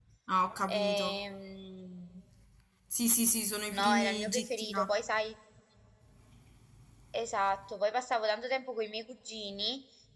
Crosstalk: present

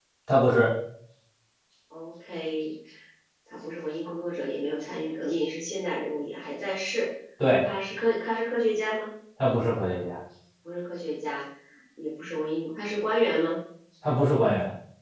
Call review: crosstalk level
none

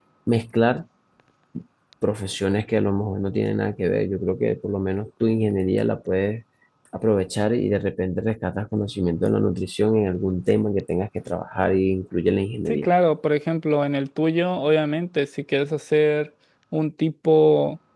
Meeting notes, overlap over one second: none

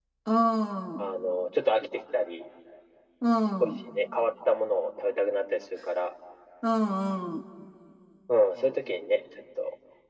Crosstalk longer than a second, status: none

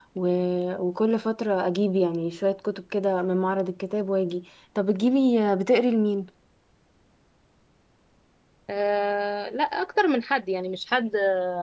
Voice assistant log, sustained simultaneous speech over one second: none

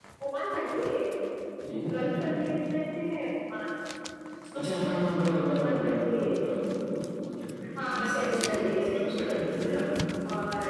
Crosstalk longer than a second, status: present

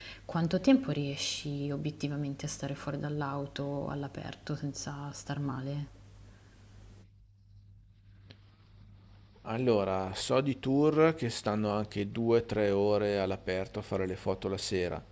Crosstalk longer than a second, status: none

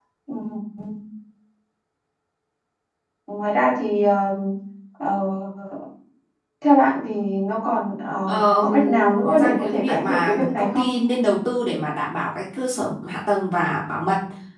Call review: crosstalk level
present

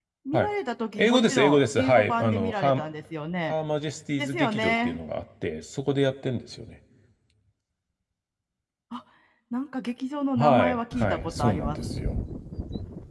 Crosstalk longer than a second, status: present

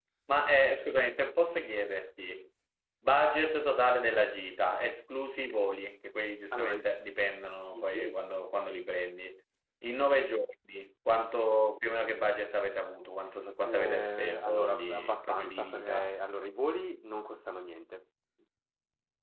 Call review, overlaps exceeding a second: present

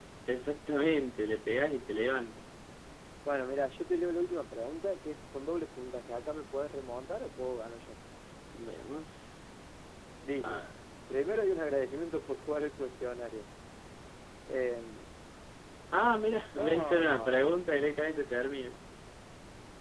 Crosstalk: present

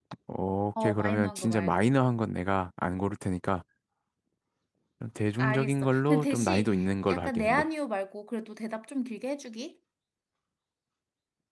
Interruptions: present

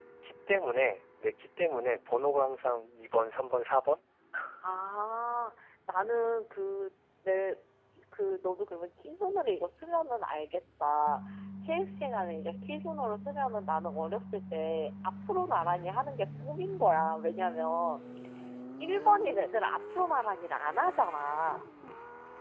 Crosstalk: none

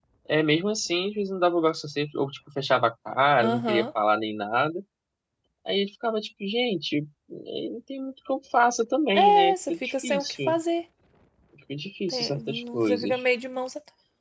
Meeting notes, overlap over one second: present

